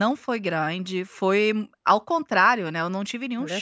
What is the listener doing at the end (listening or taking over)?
listening